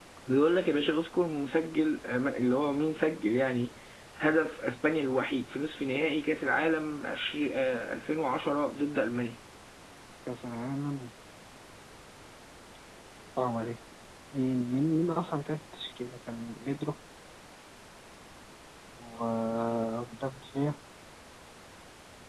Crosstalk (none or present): none